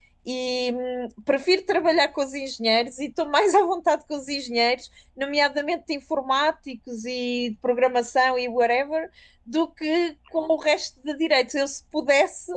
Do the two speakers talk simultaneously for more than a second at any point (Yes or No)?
No